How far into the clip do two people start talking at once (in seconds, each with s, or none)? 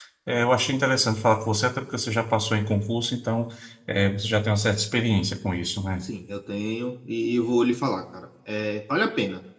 none